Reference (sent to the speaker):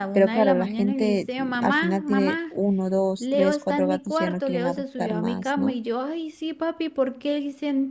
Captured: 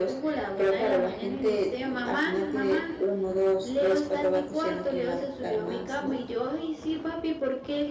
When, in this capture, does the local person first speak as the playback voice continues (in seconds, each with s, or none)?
none